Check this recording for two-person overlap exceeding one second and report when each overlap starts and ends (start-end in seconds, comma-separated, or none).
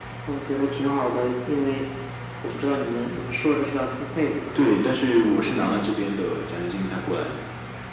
none